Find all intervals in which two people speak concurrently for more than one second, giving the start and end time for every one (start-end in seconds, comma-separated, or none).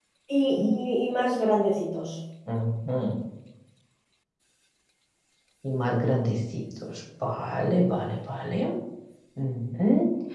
none